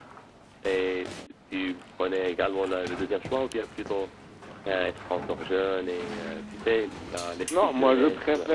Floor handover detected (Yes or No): Yes